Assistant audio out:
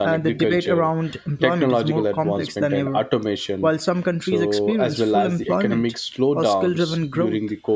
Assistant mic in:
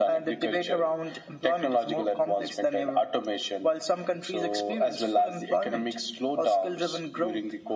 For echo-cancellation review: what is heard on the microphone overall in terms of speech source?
echo only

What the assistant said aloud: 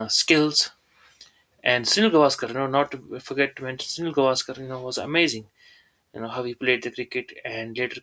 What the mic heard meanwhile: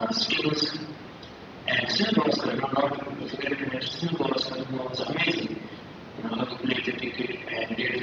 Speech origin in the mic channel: echo only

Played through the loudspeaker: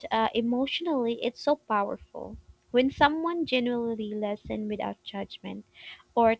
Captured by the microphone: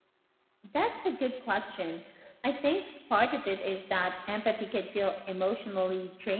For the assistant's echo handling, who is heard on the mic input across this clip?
user only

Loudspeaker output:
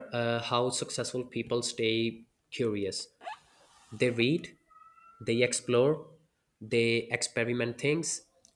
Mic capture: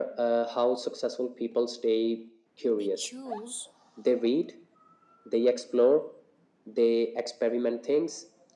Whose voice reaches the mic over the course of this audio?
both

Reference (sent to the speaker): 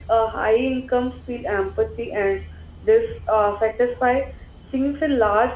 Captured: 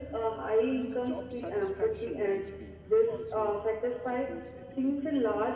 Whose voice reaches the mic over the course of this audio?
both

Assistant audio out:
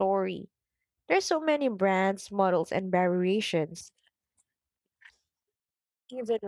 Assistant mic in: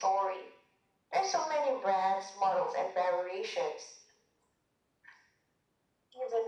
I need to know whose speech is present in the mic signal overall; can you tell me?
echo only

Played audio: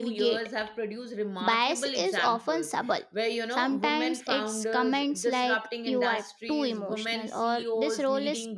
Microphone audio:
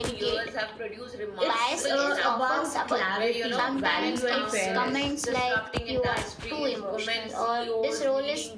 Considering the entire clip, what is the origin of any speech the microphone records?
both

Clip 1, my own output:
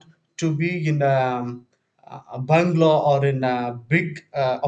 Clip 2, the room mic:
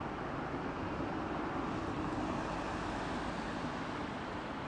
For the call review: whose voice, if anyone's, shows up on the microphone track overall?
neither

